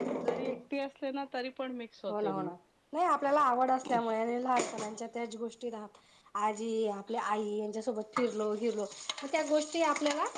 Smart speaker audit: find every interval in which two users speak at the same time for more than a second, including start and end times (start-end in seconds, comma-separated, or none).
none